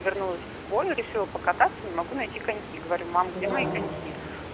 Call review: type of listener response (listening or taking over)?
listening